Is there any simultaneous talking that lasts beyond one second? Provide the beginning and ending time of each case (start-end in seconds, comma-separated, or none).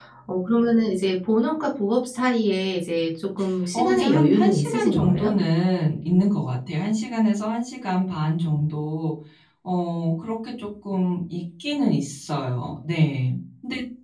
3.7-5.4